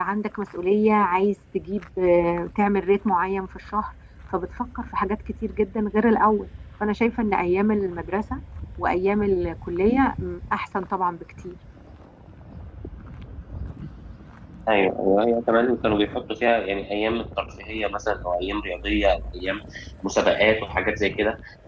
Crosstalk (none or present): none